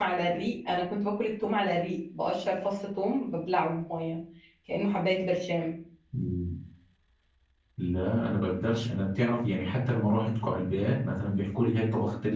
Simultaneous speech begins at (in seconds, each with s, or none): none